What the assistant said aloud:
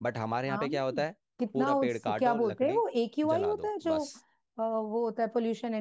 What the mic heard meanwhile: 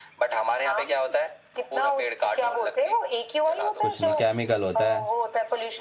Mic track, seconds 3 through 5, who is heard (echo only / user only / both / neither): both